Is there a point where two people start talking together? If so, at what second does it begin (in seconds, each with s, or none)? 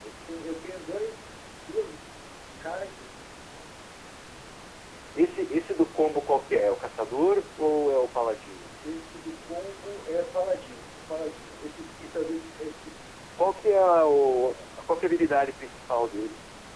none